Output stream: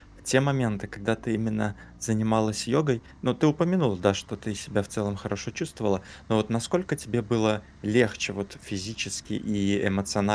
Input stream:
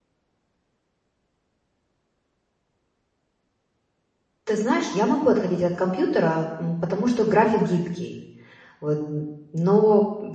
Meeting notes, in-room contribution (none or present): present